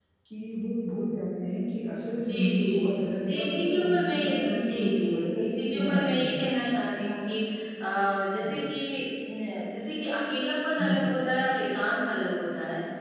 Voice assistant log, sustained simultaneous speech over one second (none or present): present